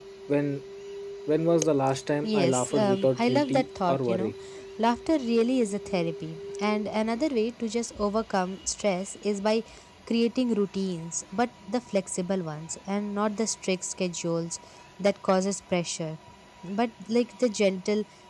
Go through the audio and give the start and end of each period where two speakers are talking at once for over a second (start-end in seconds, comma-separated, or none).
2.2-4.3